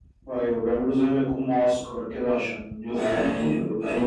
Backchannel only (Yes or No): No